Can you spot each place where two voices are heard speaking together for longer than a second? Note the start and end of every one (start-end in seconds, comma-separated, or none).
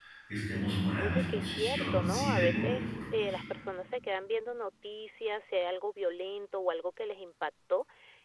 1.0-3.2